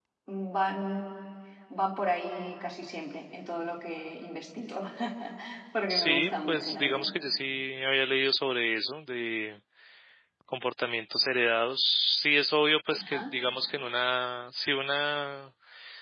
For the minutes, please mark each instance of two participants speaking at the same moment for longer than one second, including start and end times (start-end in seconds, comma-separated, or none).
5.9-7.1